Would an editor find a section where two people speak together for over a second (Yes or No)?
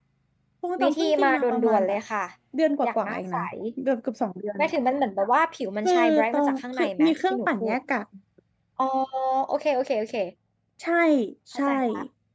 Yes